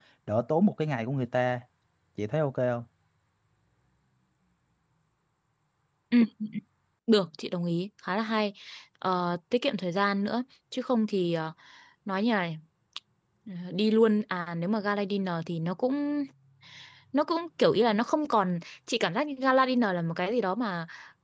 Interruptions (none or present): none